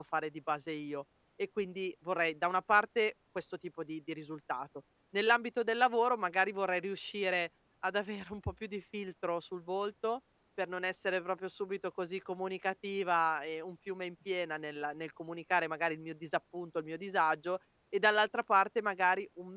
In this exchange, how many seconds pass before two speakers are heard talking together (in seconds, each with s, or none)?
none